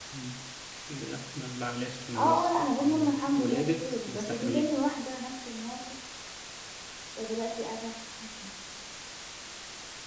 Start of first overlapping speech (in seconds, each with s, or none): 2.1 s